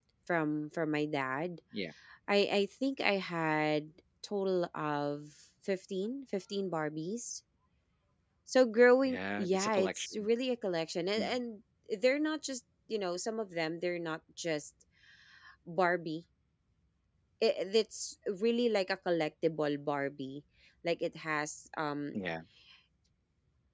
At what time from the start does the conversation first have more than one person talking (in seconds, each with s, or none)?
9.1 s